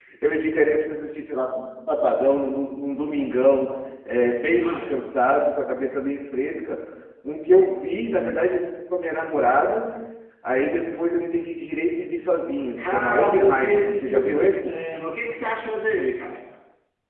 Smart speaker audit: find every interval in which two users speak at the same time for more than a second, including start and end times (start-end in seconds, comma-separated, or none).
12.8-14.8